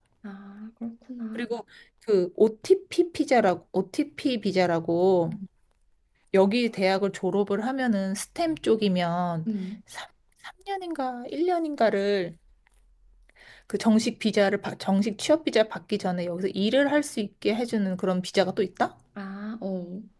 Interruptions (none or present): none